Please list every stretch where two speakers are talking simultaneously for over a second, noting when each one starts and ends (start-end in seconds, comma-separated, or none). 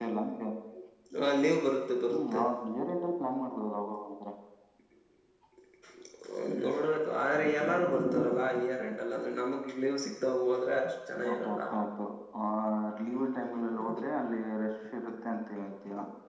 none